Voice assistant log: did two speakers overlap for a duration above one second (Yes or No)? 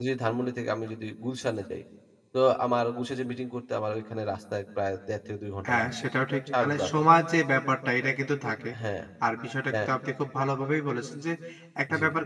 No